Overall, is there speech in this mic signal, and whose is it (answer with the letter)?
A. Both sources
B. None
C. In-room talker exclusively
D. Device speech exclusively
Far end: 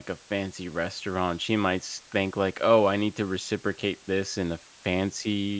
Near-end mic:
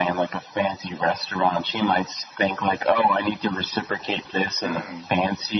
A